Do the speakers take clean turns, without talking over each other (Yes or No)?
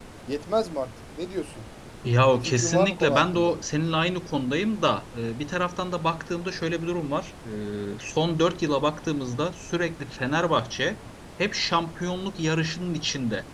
No